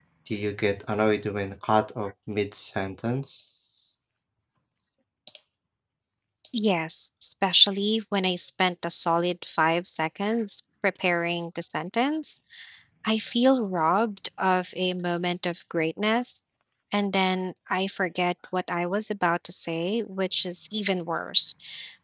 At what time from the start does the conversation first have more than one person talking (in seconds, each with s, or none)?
none